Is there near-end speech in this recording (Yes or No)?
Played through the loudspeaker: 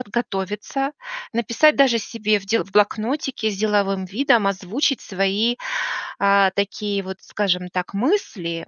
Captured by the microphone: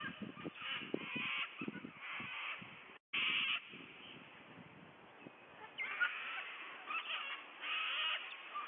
No